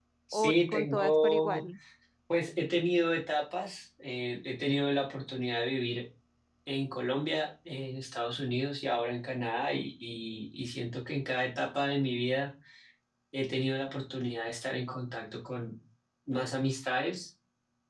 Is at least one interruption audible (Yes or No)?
Yes